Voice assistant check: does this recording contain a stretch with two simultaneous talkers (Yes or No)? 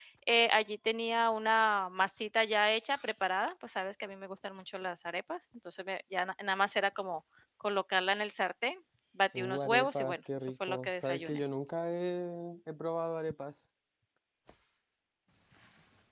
Yes